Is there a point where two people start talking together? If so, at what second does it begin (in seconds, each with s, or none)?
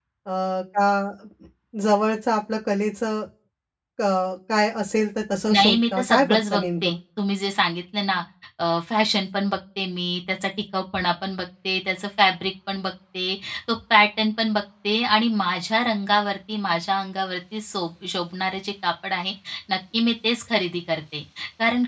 5.5 s